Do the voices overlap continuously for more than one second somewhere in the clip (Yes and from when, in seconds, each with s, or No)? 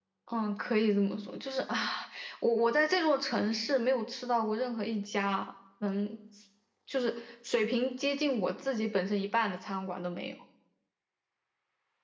No